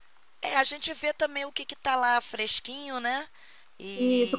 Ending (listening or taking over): taking over